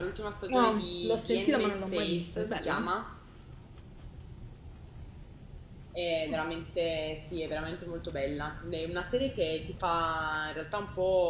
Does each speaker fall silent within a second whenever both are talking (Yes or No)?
No